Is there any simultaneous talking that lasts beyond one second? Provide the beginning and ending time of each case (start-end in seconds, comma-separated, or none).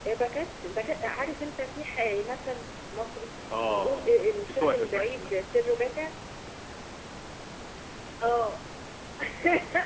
3.6-5.3